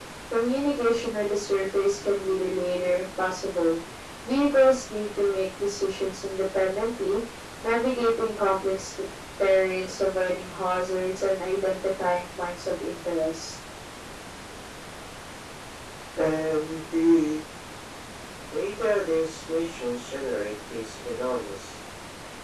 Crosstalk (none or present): none